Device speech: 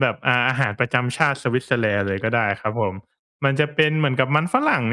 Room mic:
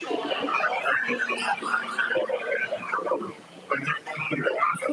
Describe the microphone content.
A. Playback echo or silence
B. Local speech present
B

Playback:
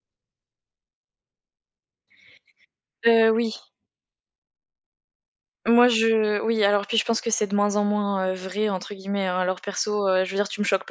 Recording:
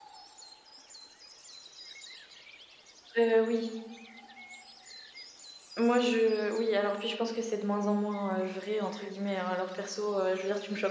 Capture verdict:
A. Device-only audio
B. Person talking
A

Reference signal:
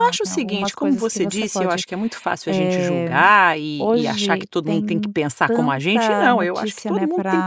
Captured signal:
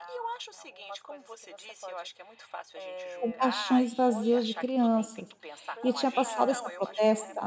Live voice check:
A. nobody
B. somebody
B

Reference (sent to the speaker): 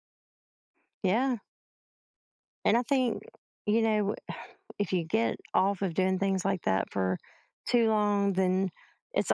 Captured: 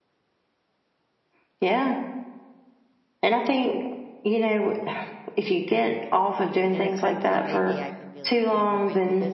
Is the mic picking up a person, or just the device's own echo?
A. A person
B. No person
A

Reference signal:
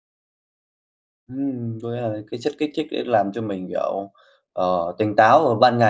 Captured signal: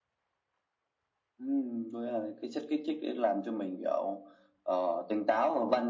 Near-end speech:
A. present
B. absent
B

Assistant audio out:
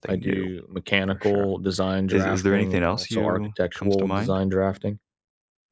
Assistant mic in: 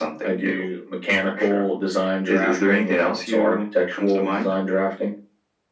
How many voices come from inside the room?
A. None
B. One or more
A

